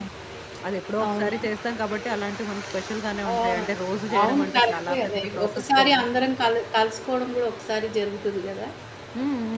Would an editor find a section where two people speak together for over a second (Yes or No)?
Yes